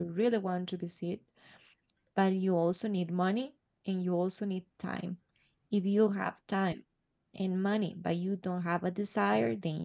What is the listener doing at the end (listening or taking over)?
listening